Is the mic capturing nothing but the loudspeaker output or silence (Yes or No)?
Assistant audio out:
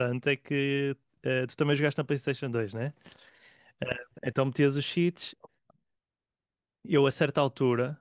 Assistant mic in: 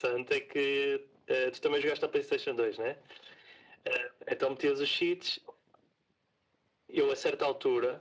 Yes